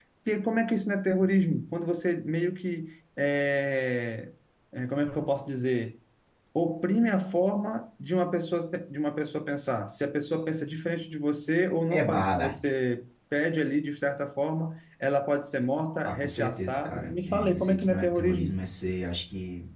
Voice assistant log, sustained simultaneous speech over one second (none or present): present